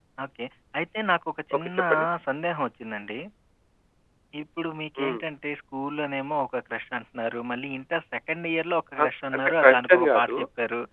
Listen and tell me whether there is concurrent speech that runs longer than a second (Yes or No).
Yes